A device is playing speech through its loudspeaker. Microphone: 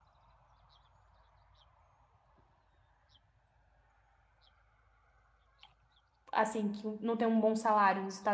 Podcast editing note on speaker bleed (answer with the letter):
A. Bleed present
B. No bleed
B